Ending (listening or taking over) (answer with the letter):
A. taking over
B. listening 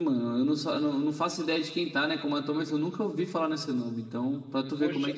A